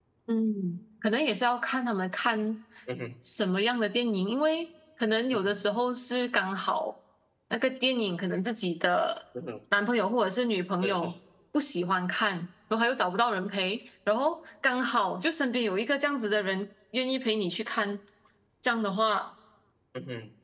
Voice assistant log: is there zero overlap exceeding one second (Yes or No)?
Yes